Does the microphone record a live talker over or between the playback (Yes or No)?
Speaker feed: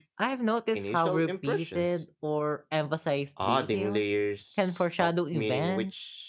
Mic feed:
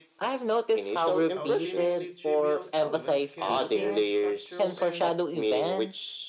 Yes